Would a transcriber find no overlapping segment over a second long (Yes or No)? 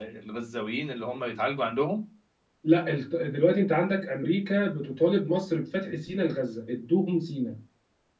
Yes